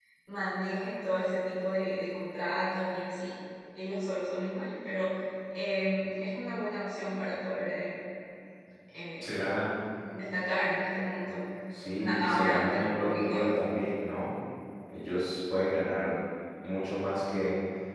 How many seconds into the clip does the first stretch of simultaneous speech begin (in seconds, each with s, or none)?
11.9 s